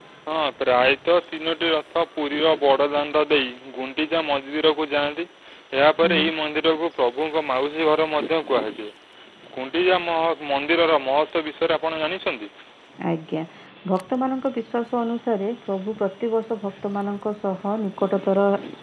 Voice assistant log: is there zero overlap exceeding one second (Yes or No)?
Yes